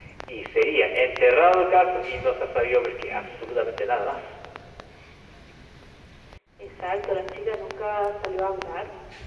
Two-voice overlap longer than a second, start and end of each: none

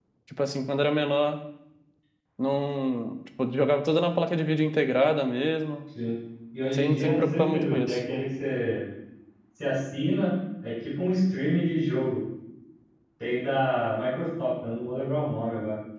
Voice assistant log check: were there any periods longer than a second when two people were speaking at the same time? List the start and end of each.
6.7-8.0

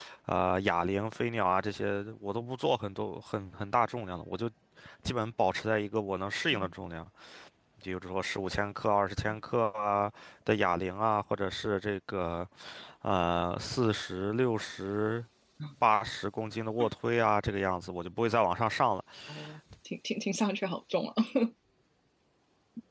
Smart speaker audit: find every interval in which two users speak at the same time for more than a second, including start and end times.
none

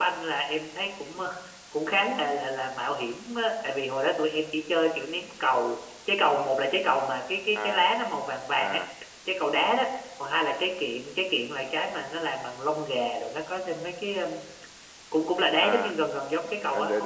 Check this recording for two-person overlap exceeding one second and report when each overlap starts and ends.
none

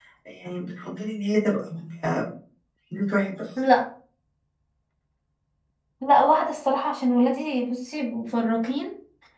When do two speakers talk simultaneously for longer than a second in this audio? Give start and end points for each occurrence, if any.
none

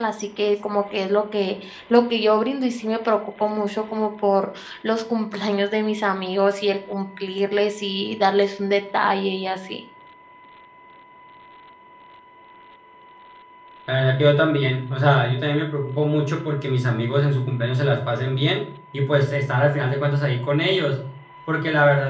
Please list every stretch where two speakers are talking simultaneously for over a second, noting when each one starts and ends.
none

